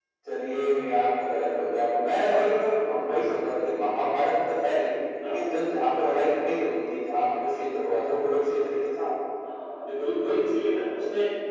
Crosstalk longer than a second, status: none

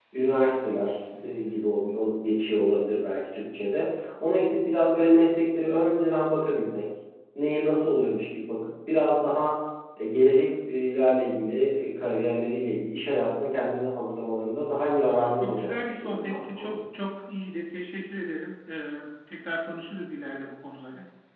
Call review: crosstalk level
present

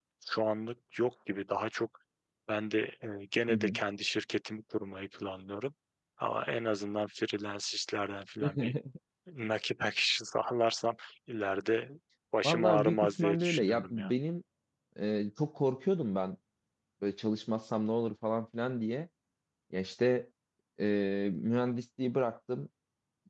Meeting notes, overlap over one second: present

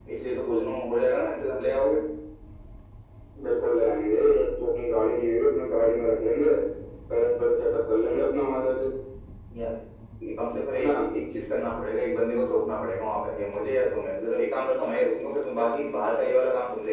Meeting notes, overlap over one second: none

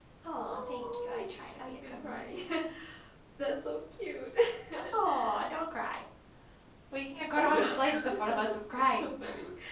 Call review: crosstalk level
present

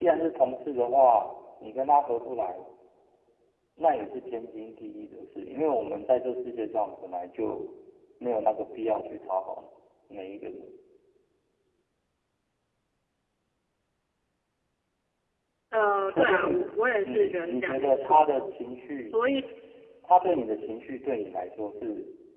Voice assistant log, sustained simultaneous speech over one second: present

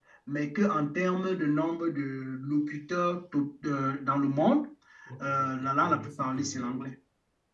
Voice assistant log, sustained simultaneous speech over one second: present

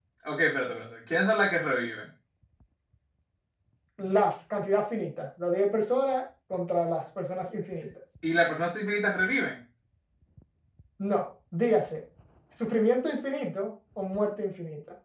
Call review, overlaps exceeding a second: none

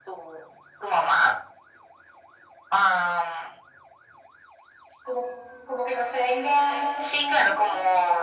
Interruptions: present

